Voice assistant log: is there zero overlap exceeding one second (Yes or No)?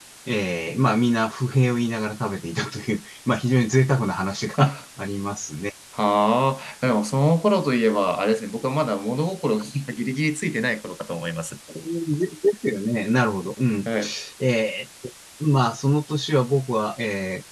Yes